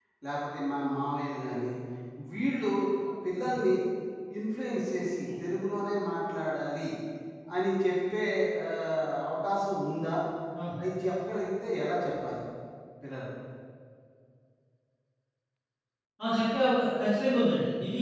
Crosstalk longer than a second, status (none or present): none